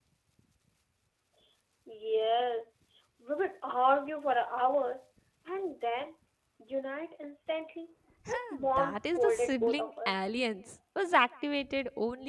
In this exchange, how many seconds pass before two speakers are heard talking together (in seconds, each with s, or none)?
8.2 s